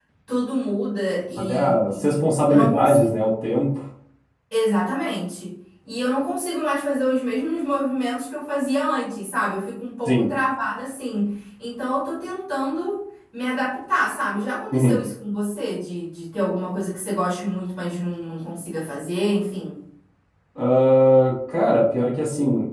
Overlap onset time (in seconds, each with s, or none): 1.4 s